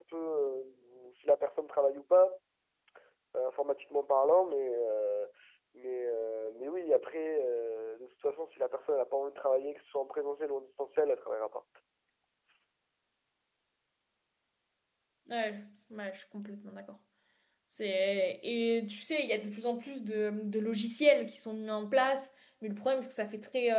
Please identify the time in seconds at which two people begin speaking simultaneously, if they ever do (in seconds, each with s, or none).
none